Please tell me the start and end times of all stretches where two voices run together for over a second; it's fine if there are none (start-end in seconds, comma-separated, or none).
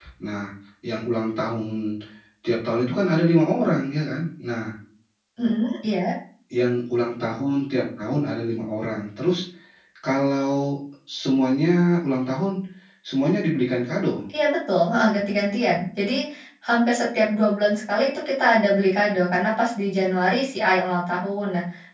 none